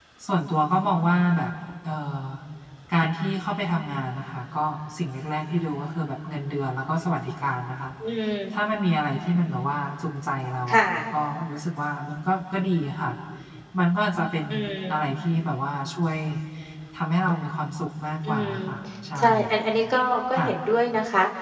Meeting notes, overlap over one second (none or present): none